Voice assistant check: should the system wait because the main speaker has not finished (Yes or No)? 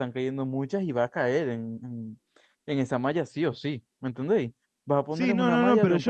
No